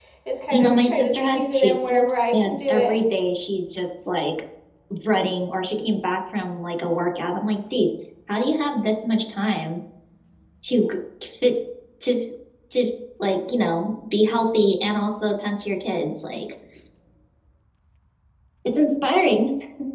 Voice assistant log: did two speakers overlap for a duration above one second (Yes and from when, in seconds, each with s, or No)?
Yes, from 0.5 s